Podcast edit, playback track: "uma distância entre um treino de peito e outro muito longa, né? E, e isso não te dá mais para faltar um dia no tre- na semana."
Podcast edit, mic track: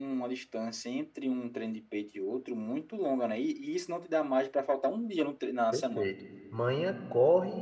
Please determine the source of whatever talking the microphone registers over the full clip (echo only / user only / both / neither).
both